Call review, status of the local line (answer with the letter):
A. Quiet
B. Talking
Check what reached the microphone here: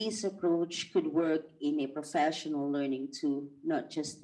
A